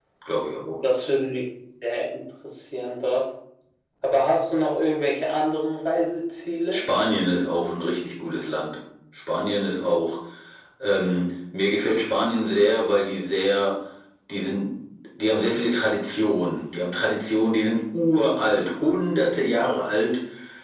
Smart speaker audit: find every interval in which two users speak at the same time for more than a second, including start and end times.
none

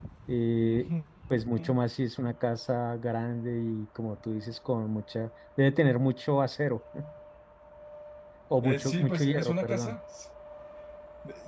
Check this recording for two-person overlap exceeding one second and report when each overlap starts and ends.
8.6-10.0

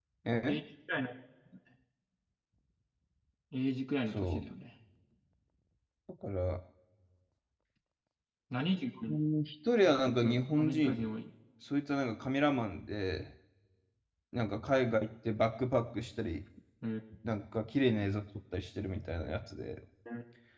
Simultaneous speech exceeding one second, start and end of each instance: 9.8-11.1

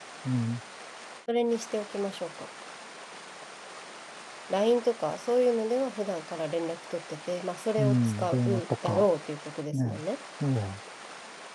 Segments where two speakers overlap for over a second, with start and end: 7.8-9.1

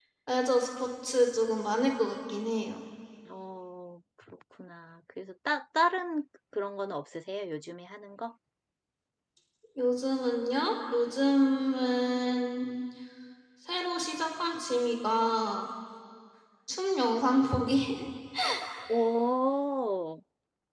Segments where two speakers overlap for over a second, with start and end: none

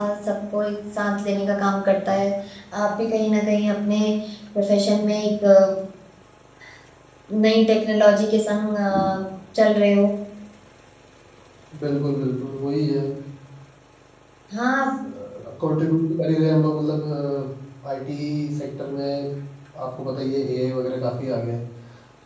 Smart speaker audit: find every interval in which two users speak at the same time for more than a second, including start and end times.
none

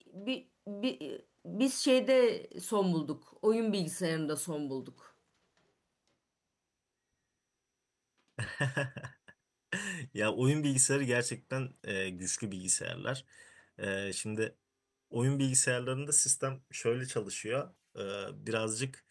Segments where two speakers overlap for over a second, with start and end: none

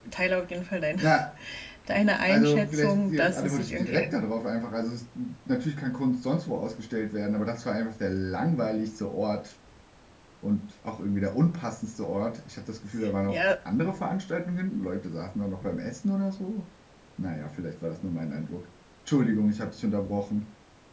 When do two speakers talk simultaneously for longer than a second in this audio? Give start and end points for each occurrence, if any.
2.3-4.2

